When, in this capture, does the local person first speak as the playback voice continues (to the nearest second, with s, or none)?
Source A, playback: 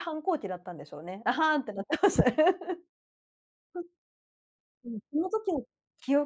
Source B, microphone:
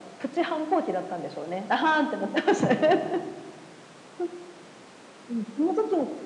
none